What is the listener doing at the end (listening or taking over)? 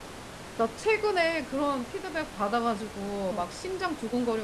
listening